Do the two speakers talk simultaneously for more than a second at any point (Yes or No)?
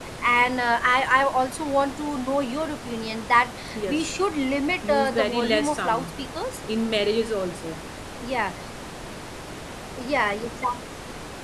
Yes